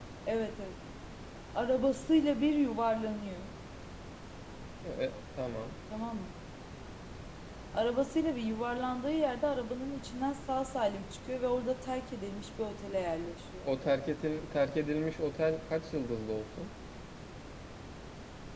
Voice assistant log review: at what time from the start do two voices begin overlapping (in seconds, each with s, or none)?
none